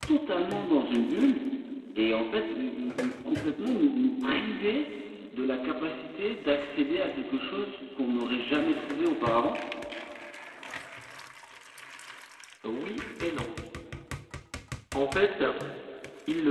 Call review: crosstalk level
none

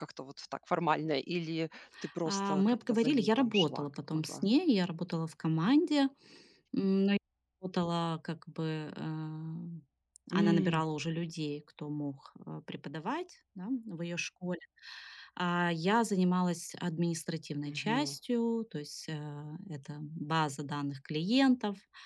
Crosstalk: present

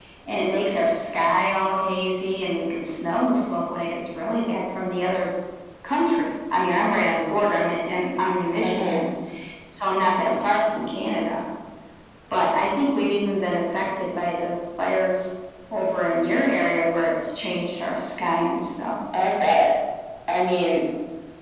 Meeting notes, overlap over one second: none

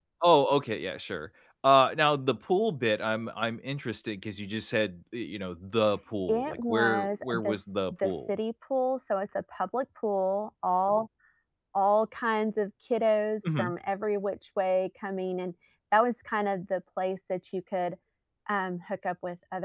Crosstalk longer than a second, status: present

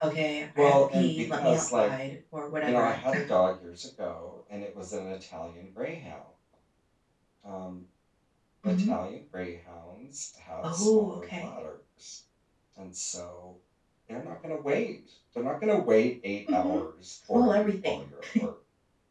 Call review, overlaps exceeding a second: present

